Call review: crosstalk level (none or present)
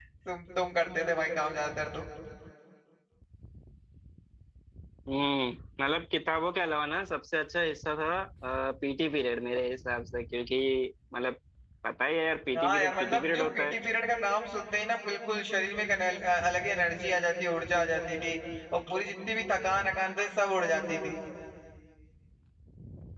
present